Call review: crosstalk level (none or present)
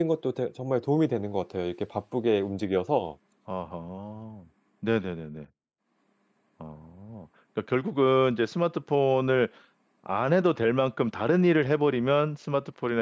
none